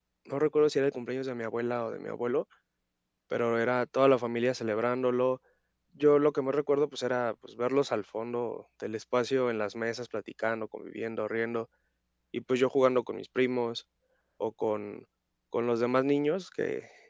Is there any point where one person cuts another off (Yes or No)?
No